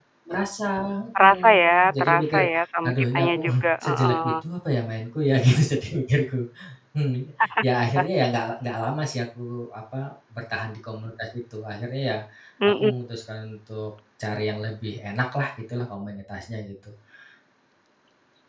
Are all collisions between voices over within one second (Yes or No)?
No